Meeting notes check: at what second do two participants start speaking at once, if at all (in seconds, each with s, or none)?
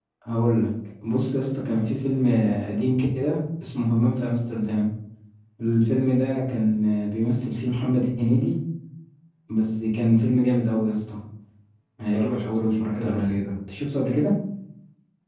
12.1 s